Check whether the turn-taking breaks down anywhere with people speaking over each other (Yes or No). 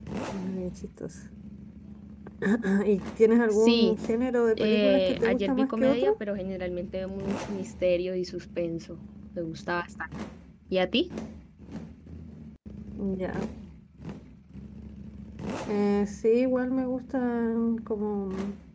Yes